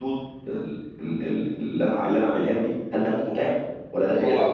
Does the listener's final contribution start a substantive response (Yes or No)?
Yes